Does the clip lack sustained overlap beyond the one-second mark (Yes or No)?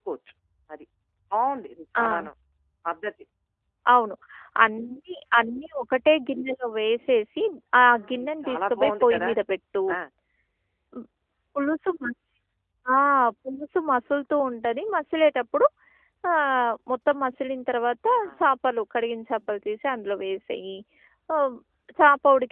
No